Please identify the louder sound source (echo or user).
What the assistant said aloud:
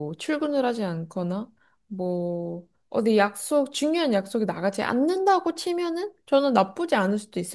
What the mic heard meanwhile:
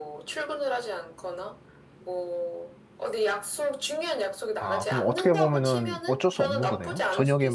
user